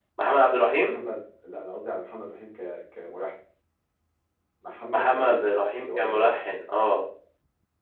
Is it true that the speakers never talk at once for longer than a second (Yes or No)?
No